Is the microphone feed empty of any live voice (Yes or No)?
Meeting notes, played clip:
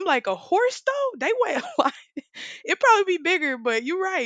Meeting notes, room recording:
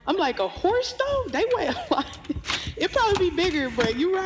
Yes